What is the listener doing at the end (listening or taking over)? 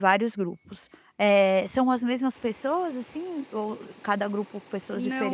taking over